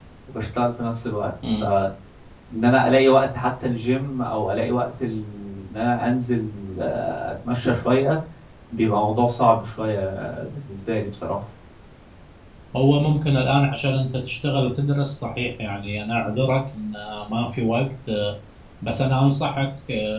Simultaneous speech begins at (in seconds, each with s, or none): none